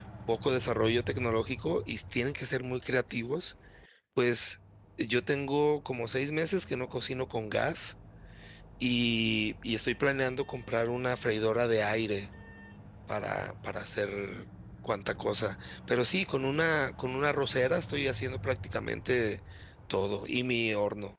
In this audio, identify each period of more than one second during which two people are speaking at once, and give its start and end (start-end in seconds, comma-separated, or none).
none